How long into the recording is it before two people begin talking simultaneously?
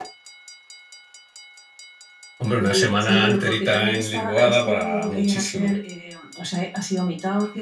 2.6 s

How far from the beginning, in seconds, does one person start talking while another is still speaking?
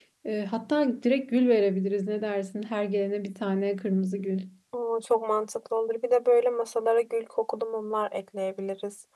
none

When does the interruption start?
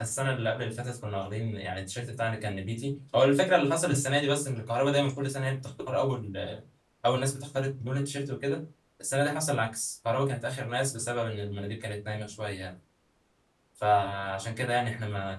none

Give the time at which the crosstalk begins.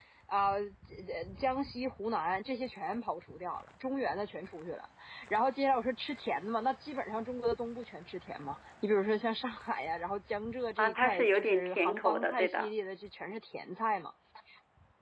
10.8 s

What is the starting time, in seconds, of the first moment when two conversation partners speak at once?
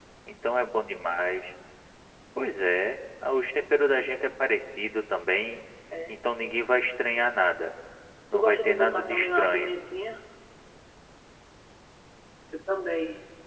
8.3 s

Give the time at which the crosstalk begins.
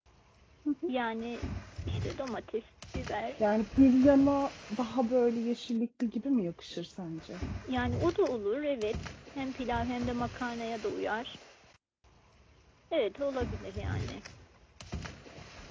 none

